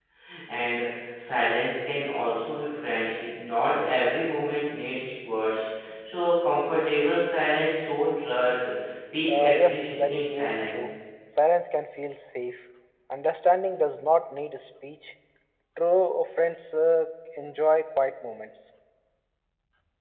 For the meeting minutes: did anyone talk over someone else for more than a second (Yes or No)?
Yes